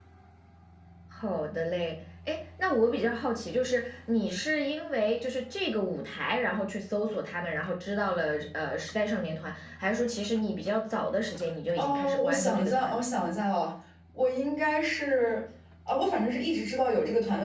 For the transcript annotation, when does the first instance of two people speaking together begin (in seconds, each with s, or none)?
11.8 s